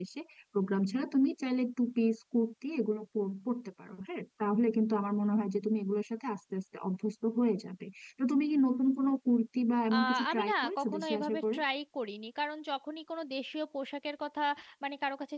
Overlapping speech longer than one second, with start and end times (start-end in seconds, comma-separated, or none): 9.9-11.6